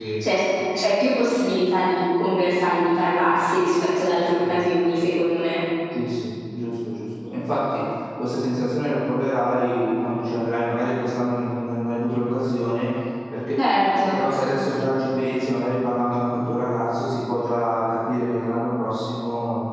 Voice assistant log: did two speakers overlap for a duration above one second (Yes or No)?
No